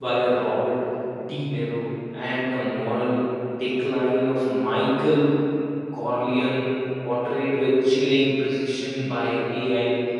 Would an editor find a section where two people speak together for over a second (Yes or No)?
No